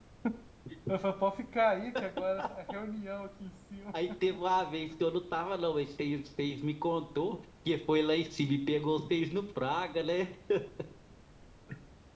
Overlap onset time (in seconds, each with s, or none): none